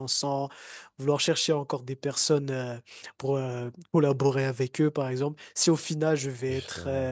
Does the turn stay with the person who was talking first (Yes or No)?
Yes